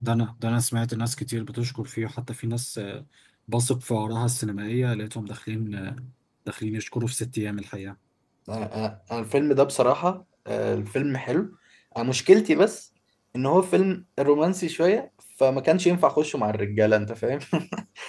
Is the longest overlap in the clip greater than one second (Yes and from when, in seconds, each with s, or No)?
No